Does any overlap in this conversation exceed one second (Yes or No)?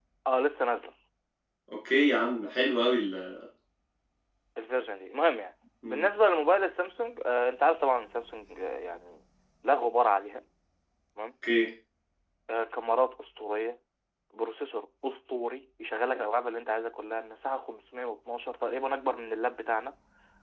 No